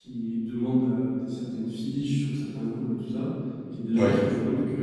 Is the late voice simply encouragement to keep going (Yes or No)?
Yes